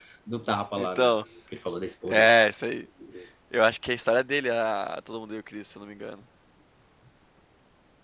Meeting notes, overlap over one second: none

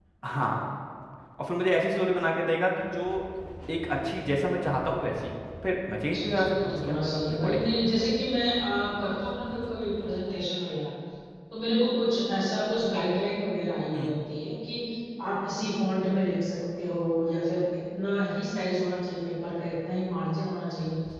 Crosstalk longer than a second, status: present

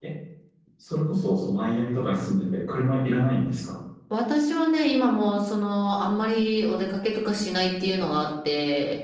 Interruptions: none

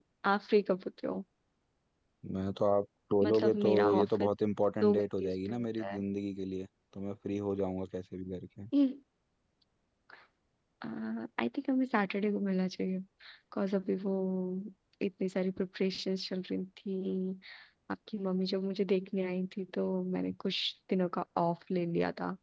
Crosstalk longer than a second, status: present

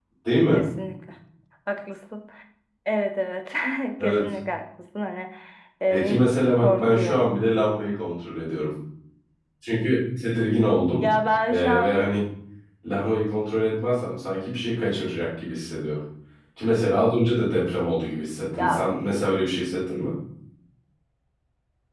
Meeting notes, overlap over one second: present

